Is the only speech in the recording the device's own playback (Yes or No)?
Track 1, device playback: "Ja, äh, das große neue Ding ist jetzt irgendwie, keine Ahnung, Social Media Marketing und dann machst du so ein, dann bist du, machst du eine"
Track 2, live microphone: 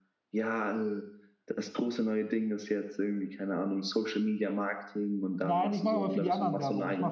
No